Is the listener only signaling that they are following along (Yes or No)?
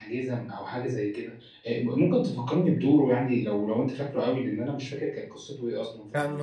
No